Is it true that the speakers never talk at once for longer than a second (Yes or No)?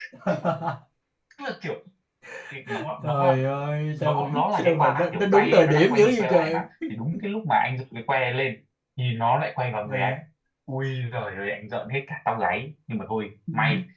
No